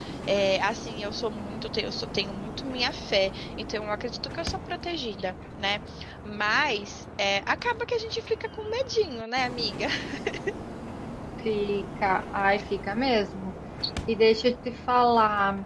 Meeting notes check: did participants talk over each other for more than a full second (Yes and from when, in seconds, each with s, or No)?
No